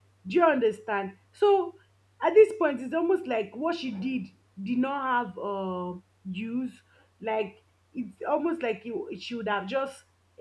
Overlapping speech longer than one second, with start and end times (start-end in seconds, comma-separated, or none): none